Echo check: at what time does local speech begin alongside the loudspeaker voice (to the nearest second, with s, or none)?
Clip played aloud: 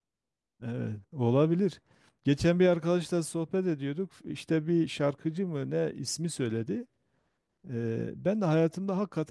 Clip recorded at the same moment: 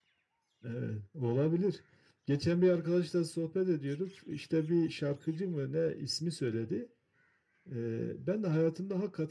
none